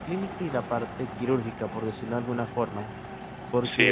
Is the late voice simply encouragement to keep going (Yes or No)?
Yes